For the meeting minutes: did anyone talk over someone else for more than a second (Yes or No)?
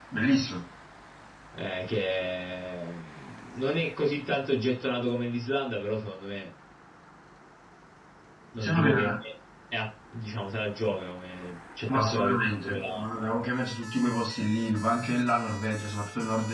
Yes